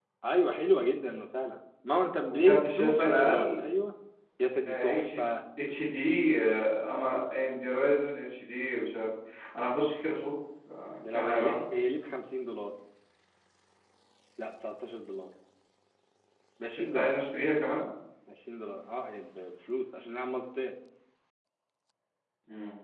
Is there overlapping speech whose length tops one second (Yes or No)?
Yes